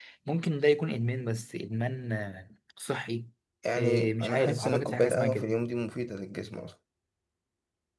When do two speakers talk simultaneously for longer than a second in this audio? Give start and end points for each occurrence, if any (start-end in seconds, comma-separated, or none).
3.8-5.5